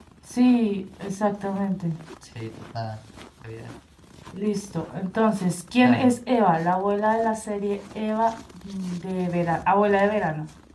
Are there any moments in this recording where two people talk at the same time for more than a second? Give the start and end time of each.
none

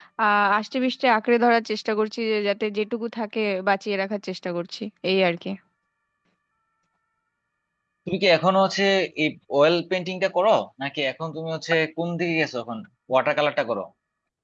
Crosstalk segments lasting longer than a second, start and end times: none

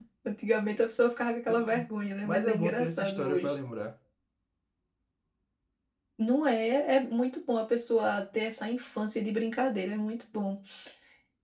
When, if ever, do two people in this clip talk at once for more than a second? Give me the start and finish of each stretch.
2.2-3.5

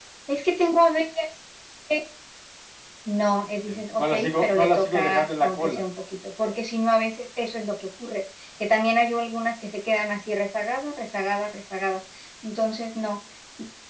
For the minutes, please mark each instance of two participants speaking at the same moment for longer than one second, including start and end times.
3.7-5.8

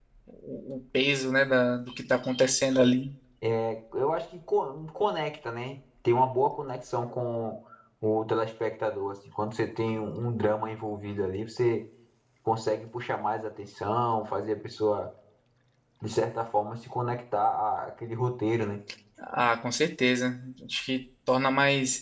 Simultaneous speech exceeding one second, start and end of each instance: none

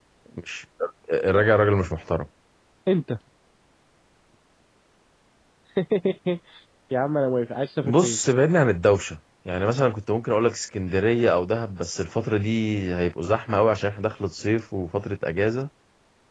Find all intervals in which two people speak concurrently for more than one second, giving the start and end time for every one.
none

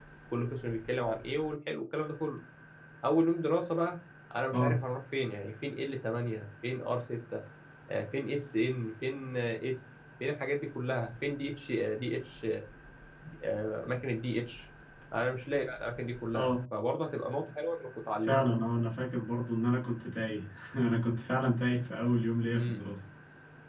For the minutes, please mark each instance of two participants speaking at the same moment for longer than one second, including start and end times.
none

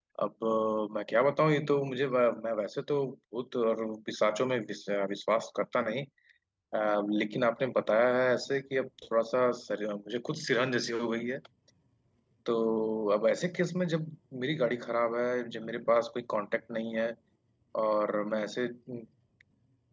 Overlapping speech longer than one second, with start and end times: none

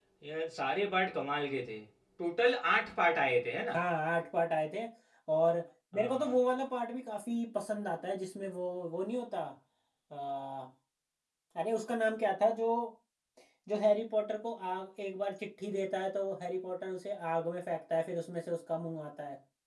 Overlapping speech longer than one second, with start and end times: none

